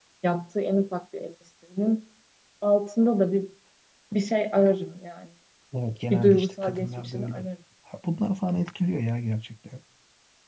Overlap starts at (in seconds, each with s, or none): 6.1 s